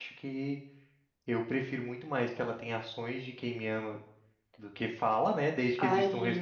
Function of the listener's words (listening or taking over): taking over